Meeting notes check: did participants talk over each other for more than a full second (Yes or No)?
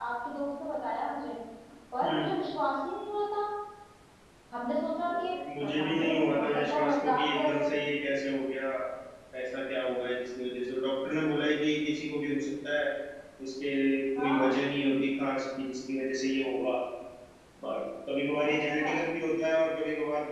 Yes